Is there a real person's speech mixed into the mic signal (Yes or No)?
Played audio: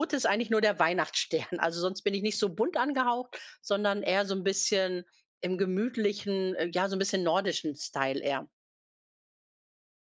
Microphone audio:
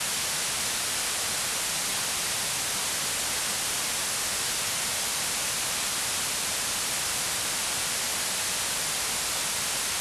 No